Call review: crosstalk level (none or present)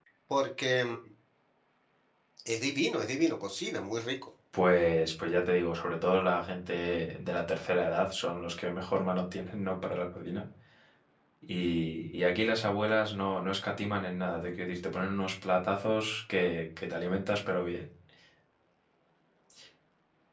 none